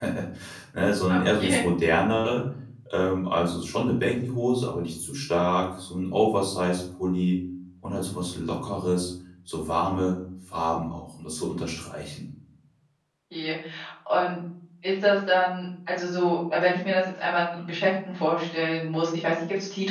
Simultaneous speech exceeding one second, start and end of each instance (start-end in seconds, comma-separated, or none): none